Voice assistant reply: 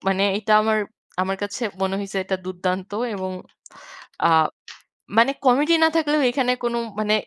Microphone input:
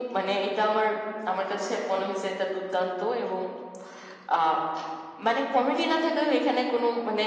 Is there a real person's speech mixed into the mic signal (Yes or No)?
No